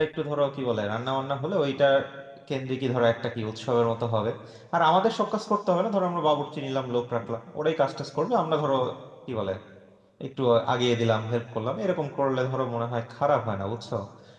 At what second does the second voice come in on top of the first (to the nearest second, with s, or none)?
none